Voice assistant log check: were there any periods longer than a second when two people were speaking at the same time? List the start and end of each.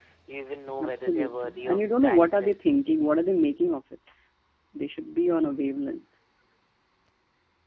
0.8-2.6

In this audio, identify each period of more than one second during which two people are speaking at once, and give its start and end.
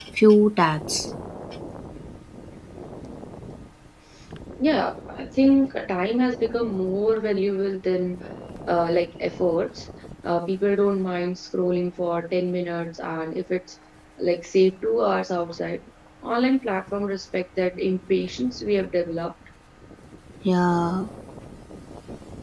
none

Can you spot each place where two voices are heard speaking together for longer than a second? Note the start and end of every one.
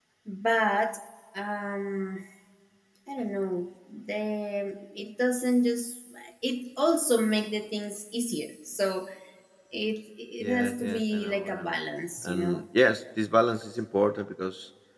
10.4-11.8

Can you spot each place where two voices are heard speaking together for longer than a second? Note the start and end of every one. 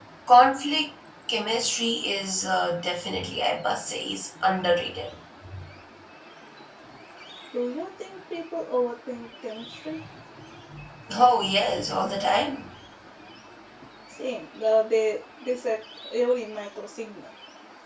none

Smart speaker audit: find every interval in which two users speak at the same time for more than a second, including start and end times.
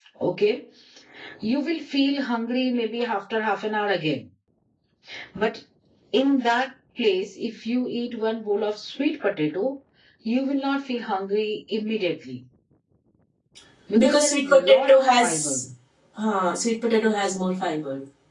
14.0-15.5

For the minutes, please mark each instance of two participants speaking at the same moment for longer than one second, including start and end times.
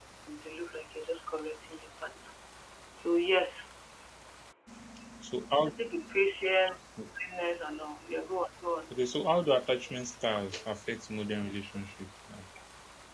none

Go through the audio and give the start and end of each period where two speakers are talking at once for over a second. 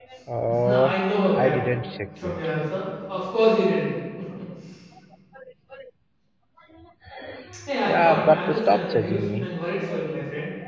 7.8-9.5

